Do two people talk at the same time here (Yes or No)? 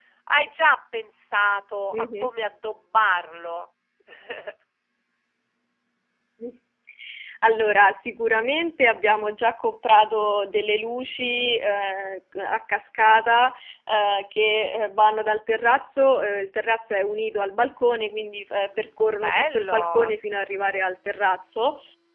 Yes